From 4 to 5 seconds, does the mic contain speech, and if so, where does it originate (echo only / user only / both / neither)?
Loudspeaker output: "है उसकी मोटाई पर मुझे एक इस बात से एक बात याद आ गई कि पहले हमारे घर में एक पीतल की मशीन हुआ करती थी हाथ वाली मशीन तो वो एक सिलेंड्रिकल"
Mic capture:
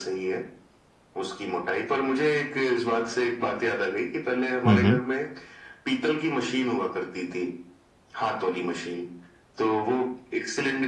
both